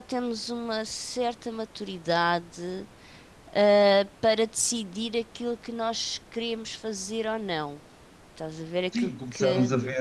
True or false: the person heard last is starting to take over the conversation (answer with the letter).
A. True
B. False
A